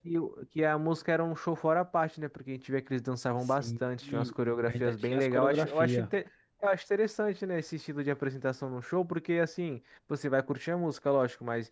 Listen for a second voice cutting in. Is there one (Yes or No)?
Yes